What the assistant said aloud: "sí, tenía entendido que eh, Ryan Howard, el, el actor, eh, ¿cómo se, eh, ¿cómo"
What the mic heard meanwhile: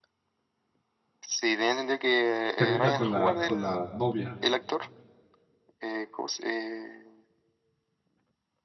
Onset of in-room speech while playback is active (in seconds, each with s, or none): 2.5 s